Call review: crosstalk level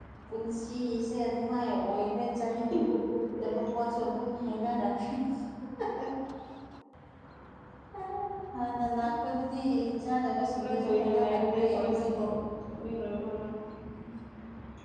present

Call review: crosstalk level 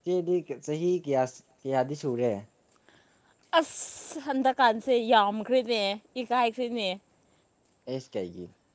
none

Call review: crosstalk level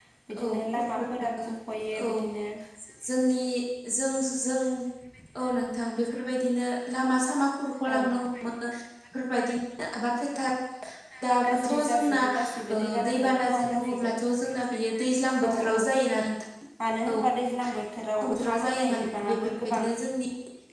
present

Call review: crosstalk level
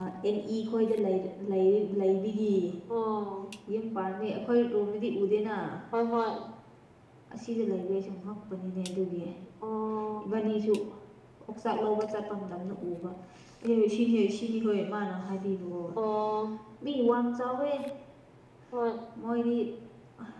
none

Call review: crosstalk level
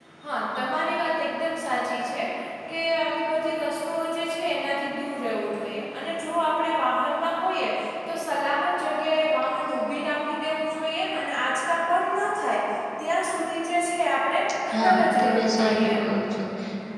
present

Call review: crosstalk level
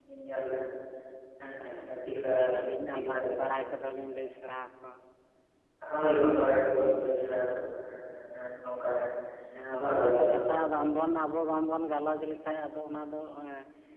present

